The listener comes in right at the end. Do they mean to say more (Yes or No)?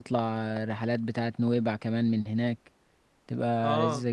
Yes